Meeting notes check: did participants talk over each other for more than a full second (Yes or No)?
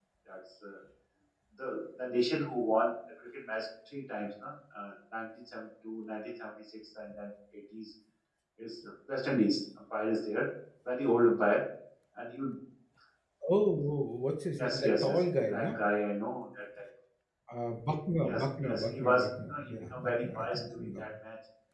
Yes